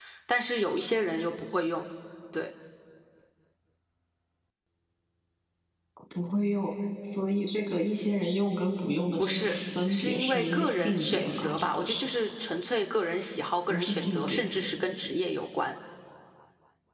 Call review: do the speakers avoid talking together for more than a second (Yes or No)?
No